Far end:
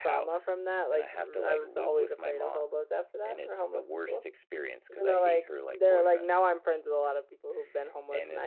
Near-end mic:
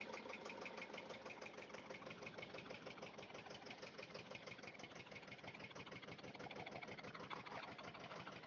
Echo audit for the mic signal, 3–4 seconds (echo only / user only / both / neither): neither